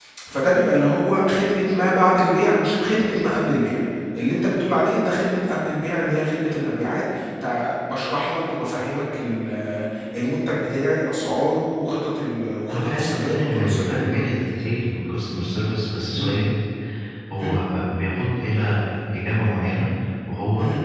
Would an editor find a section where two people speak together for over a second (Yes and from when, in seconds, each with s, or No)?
Yes, from 12.7 s